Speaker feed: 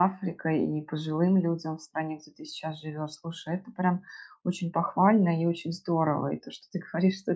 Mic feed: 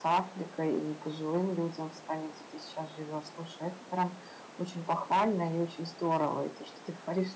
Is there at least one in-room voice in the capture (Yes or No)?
No